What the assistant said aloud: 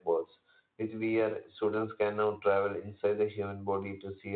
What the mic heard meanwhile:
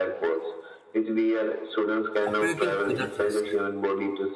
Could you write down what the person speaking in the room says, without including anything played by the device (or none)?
operating without risk,